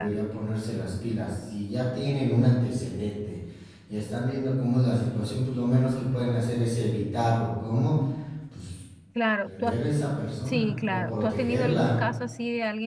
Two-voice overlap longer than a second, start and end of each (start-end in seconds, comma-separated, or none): 10.4-11.9